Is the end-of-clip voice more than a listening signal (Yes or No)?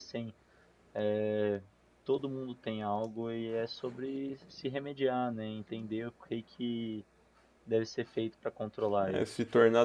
Yes